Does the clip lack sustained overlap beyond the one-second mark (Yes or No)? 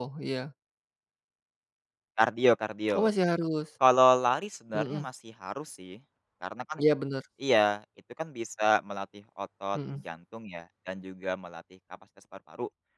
Yes